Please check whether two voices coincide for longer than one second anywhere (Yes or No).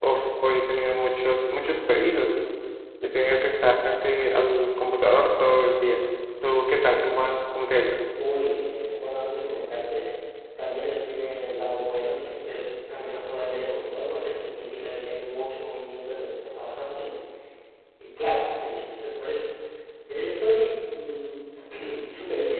No